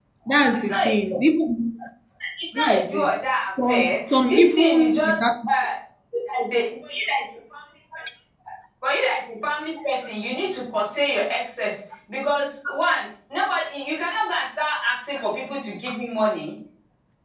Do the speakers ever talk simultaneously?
Yes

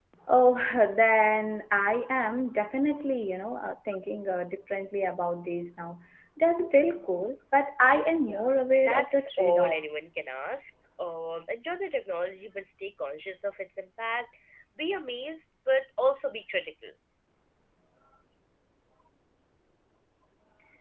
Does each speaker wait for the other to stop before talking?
No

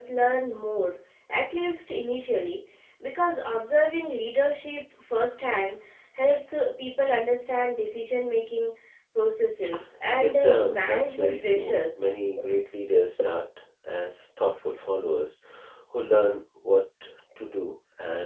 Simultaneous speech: Yes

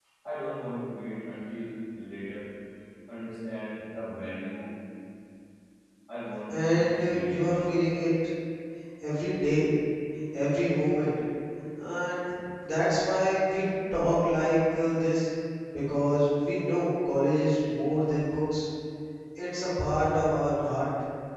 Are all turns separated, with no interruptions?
No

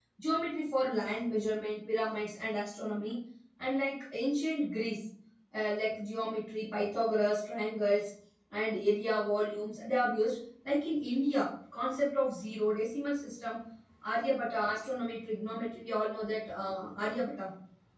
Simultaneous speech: No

